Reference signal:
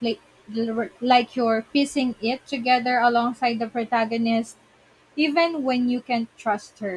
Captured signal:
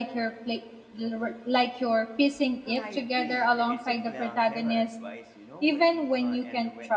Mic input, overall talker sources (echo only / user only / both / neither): both